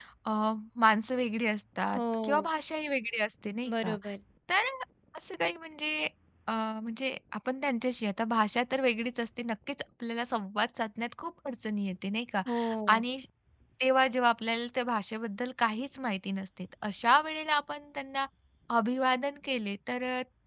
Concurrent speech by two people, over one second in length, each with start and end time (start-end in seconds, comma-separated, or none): none